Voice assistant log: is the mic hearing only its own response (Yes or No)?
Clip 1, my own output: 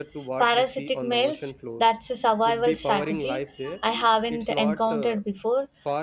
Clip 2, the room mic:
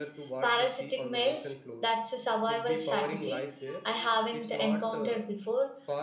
Yes